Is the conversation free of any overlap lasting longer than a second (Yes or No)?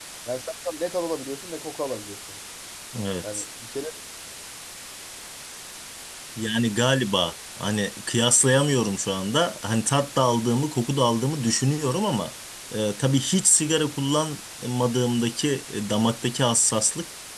Yes